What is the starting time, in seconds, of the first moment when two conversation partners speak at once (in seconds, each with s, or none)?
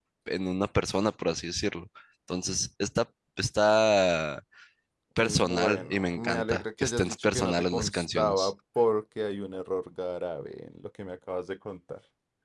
5.2 s